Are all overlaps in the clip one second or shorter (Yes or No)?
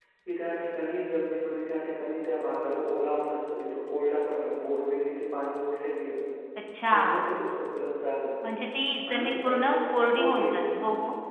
No